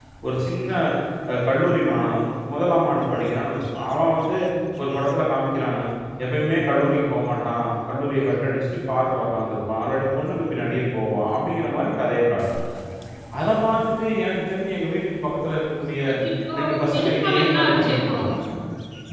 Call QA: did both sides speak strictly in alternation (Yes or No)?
No